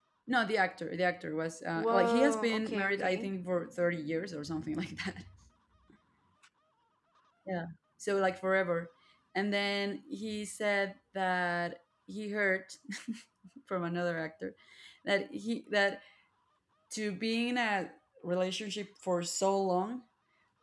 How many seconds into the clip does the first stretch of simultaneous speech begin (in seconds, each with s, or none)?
1.8 s